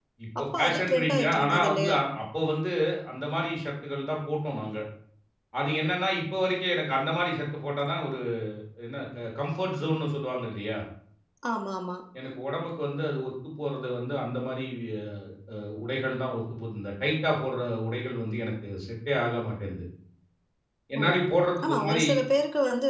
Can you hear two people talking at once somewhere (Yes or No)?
Yes